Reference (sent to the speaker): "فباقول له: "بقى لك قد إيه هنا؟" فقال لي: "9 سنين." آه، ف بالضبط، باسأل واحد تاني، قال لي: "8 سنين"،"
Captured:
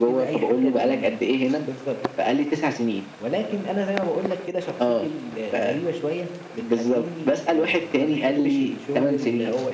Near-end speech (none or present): present